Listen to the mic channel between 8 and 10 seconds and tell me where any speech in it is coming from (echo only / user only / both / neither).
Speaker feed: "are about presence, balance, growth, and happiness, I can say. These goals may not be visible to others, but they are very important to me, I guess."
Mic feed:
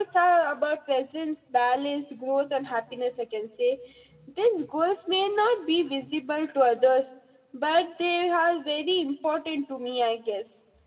echo only